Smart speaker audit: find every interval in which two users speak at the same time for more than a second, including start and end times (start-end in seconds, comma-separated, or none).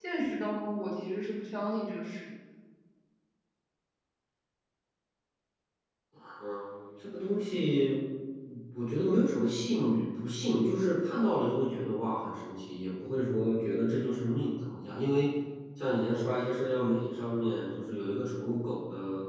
none